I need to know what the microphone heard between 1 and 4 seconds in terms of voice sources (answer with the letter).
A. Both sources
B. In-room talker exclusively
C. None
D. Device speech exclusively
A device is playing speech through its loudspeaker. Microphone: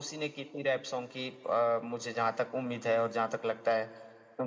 D